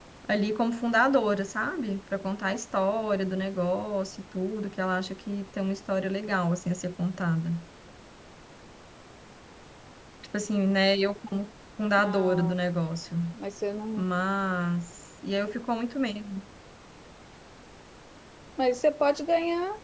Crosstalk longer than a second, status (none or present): none